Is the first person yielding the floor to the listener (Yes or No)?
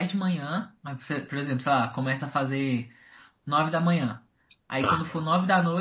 No